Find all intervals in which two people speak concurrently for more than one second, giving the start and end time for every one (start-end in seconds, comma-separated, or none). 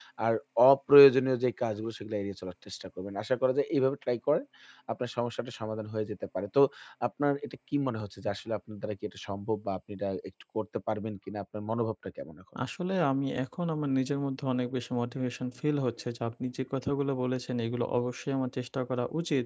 none